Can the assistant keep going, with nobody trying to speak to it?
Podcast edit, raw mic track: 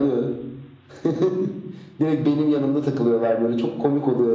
Yes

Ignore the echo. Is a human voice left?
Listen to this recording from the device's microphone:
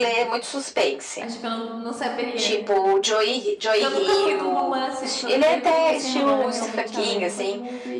Yes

